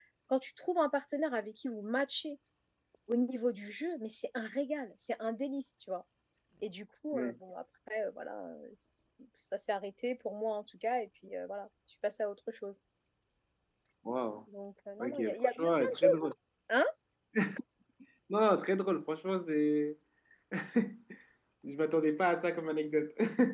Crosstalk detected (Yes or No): Yes